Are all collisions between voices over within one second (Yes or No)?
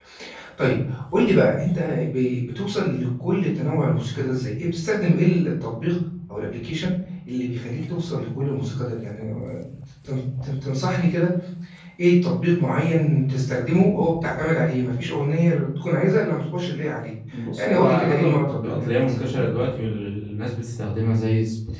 No